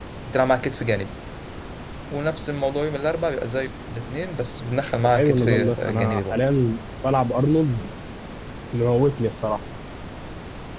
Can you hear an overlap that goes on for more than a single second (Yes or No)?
Yes